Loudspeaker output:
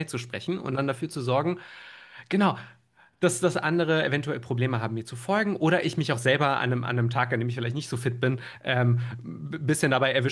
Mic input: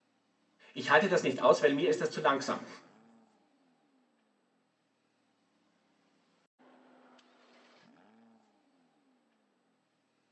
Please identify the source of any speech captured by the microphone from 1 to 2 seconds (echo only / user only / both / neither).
user only